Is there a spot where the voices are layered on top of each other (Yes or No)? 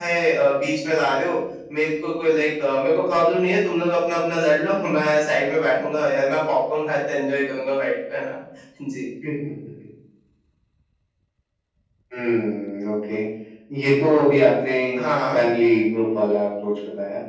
No